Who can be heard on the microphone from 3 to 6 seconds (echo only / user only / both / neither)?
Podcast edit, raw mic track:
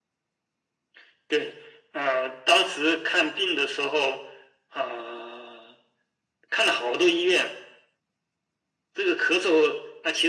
echo only